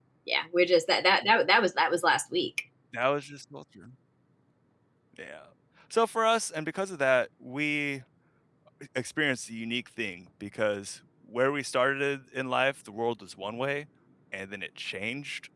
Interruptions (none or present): none